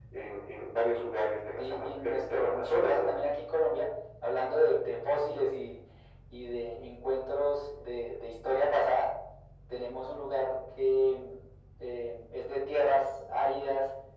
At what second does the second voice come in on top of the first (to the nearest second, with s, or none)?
2 s